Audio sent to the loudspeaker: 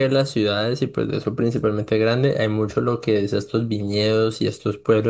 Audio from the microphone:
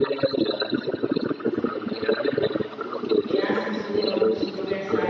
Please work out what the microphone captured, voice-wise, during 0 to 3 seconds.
echo only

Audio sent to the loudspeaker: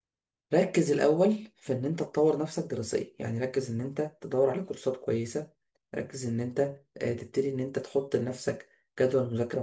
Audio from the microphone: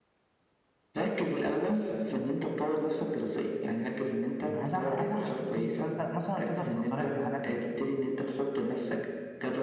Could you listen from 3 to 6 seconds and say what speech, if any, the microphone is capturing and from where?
both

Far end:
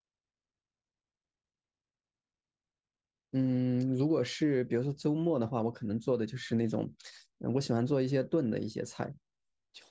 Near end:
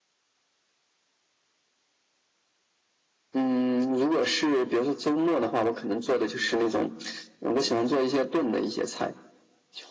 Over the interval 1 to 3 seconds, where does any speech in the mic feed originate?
neither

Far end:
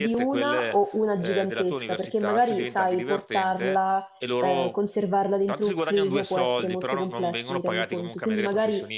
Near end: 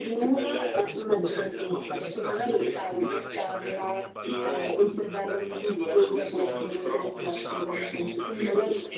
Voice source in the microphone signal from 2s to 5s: both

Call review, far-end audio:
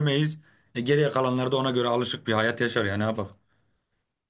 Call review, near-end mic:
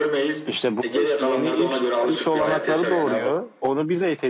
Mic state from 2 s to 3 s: both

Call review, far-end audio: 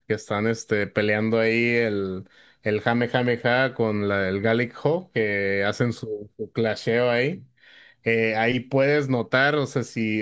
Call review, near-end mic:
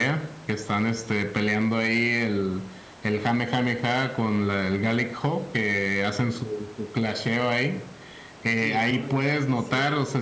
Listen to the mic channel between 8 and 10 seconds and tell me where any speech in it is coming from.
both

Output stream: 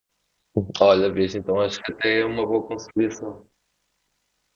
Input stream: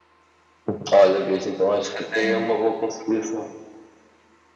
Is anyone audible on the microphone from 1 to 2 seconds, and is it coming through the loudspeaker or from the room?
echo only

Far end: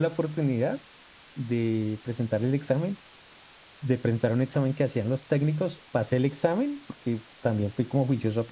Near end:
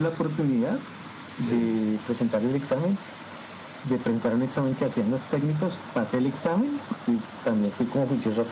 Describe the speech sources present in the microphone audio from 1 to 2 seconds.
both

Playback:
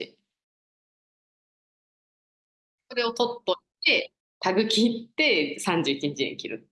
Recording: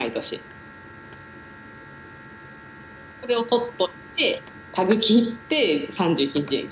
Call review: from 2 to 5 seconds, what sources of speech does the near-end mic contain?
echo only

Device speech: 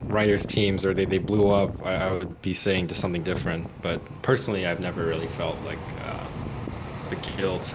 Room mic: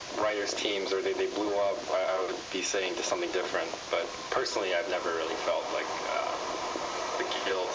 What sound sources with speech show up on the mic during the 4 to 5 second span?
echo only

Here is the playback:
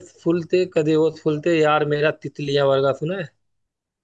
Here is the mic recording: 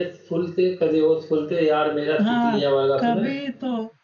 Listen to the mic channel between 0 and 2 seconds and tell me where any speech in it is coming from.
echo only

